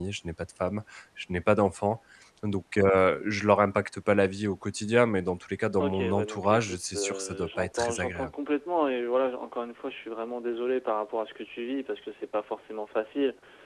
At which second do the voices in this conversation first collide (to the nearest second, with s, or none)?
6 s